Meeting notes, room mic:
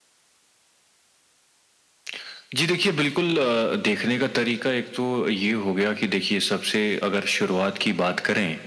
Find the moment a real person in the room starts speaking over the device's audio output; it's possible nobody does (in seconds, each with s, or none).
none